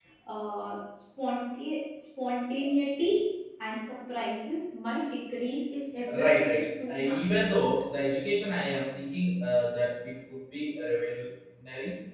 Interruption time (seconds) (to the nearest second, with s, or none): 6 s